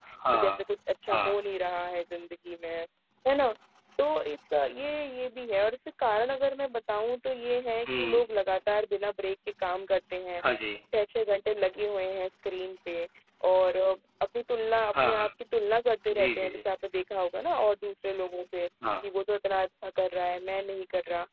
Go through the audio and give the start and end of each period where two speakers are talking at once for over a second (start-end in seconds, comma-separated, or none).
none